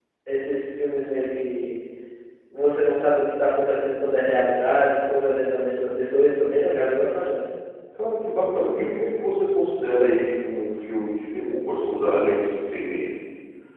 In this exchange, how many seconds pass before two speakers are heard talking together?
none

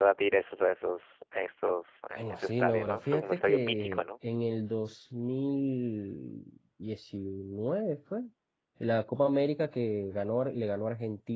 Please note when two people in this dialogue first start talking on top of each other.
2 s

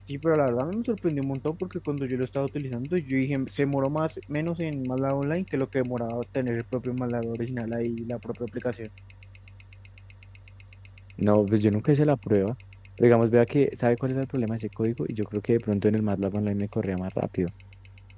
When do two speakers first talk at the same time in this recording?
none

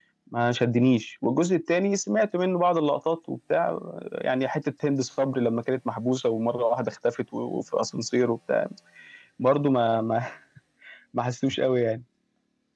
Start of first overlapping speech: none

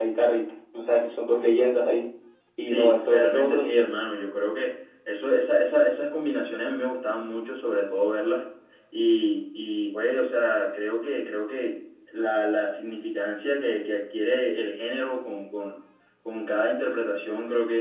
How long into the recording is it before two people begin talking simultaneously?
3 s

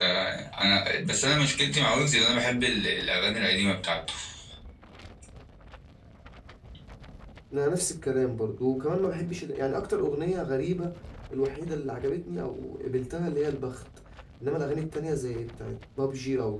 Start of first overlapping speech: none

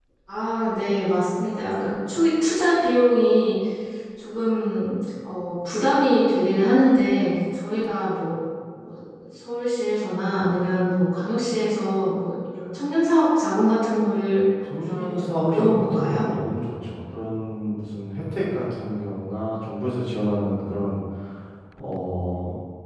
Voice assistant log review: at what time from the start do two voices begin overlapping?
15 s

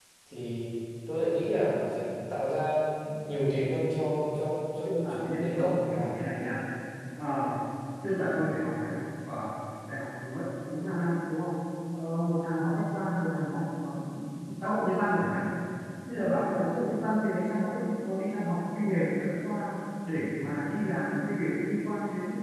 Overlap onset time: 5 s

